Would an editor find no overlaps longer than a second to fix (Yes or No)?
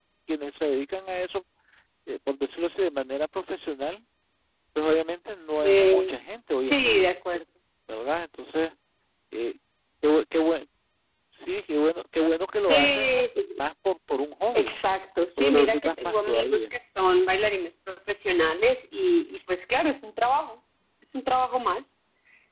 No